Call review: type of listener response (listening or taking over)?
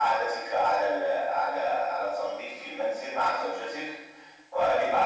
listening